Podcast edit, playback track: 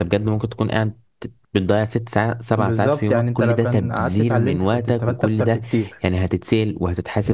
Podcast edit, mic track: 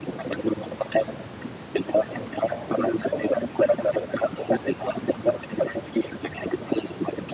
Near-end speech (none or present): none